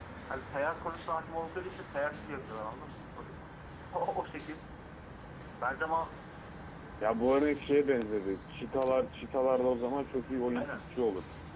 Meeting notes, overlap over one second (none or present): none